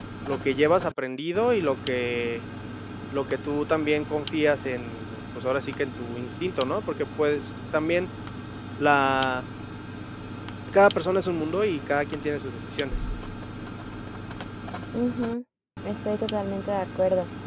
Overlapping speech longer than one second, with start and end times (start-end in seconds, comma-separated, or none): none